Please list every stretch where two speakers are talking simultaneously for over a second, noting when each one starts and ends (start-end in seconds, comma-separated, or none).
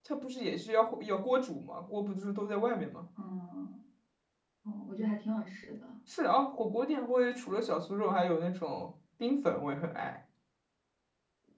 none